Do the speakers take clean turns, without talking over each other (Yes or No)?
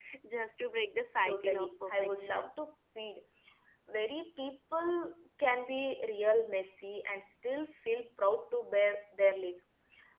No